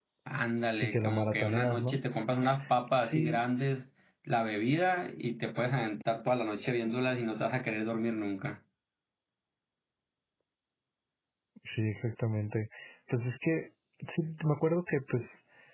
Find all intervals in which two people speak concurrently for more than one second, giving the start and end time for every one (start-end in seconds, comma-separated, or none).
0.8-2.0